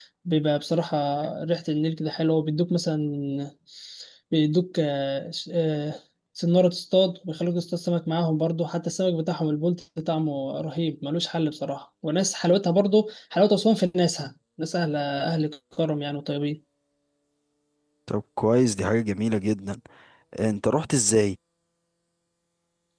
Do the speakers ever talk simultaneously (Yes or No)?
No